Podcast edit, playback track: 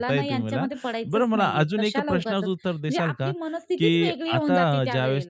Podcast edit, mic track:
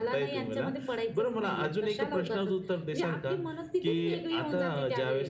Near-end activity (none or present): none